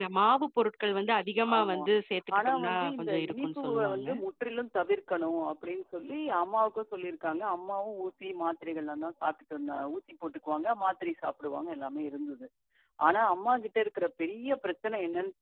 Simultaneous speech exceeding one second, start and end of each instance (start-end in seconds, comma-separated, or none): 2.4-4.1